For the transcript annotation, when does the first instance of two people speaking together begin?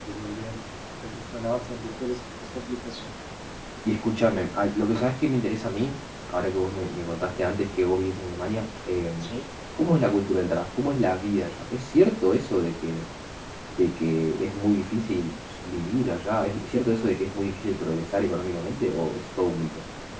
none

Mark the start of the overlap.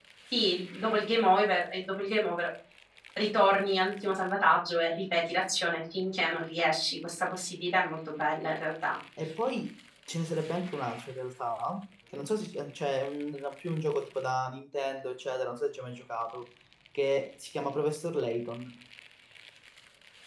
none

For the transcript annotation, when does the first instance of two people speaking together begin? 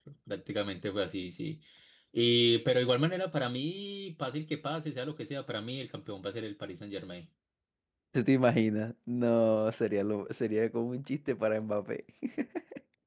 none

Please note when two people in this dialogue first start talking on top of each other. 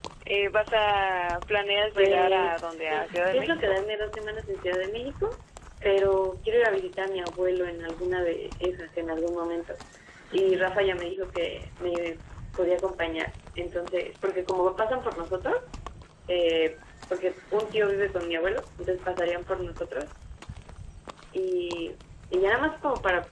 2 s

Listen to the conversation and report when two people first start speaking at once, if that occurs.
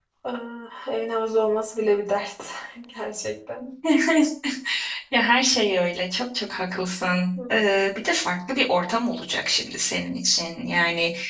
none

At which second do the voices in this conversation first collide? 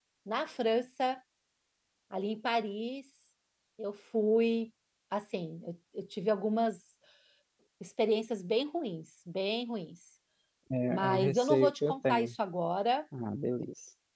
11 s

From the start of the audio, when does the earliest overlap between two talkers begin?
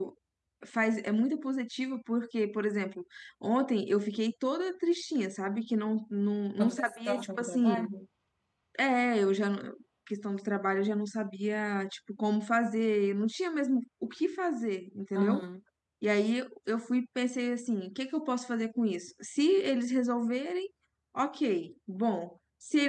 7 s

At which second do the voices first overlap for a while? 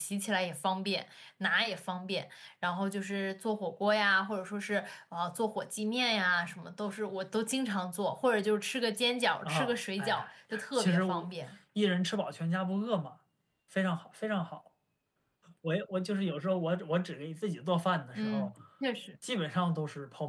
9 s

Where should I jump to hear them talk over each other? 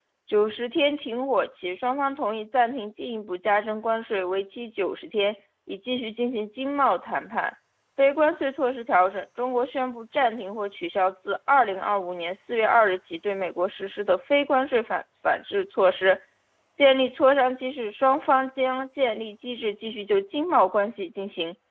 none

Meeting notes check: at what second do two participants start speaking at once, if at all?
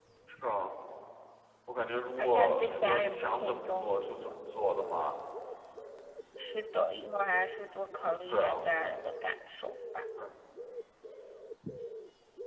2 s

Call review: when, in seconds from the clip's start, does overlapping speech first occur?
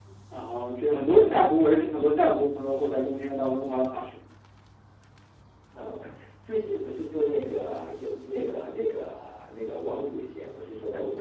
none

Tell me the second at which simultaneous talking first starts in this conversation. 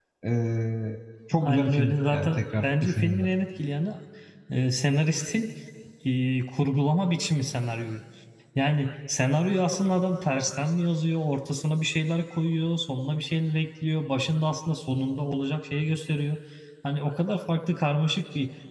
1 s

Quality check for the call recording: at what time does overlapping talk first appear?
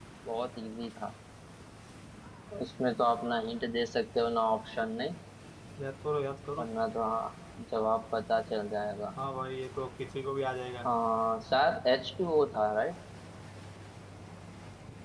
none

